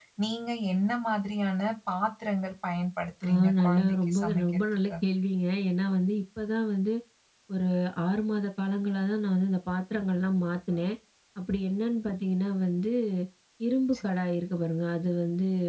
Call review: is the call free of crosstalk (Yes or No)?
No